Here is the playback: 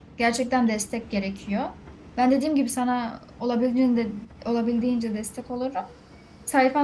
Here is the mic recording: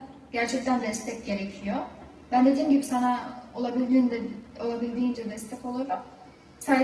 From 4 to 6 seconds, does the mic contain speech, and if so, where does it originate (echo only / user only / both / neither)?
echo only